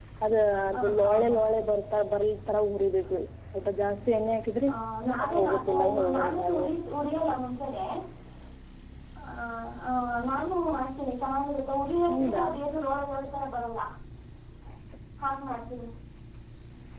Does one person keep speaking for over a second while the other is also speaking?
Yes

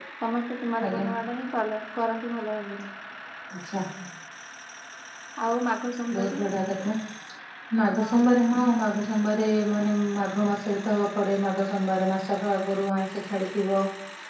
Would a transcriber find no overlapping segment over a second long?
Yes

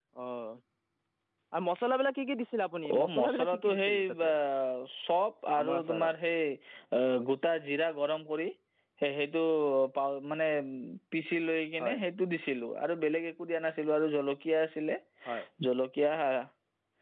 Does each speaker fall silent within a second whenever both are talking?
No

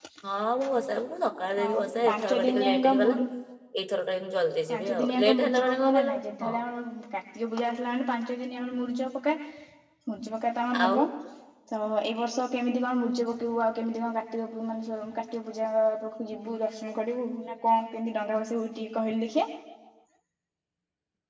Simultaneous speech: Yes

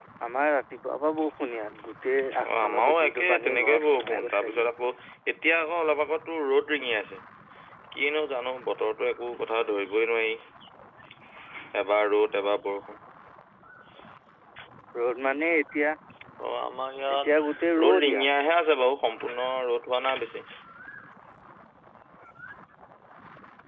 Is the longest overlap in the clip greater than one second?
Yes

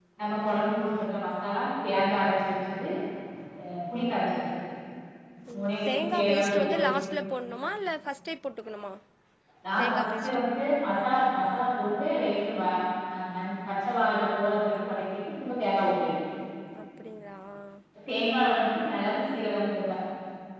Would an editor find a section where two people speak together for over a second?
Yes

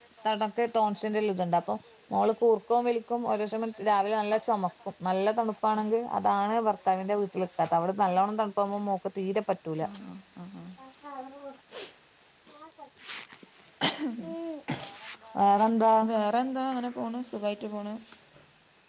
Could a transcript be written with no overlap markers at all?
Yes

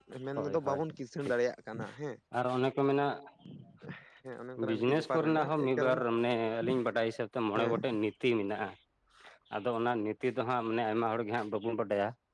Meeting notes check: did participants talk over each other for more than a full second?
Yes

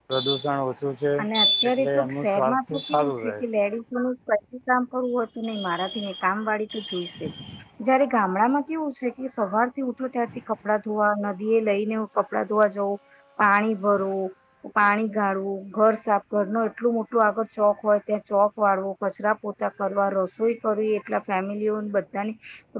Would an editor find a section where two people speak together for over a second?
Yes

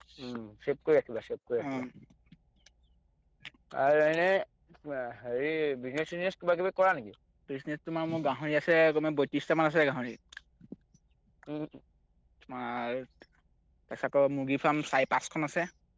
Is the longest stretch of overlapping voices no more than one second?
Yes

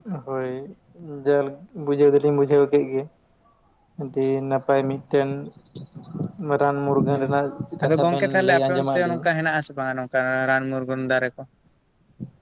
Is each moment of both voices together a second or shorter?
No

